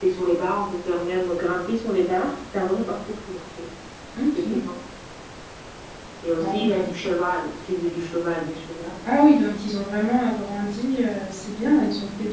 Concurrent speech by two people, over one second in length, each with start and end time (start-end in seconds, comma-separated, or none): none